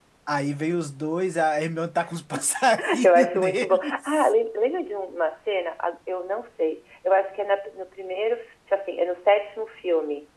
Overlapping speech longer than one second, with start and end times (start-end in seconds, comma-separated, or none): 3.0-4.3